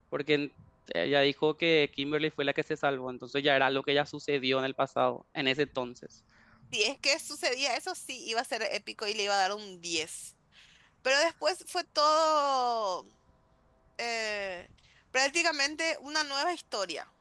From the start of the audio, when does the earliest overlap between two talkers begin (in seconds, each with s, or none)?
none